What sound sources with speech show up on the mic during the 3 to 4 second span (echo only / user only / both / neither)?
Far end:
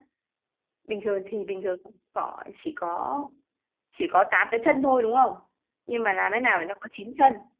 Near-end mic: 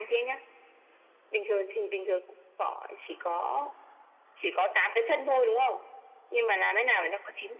echo only